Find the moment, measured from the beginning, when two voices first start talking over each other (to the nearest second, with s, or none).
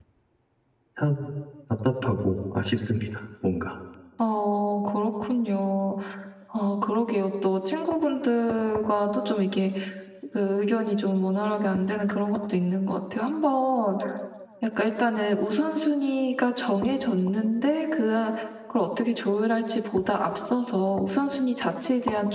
none